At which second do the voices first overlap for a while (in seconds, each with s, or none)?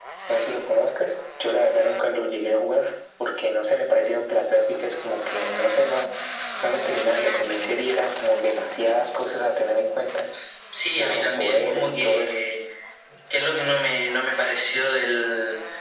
11.0 s